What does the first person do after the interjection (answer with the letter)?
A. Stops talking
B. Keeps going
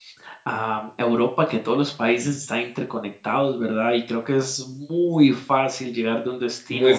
B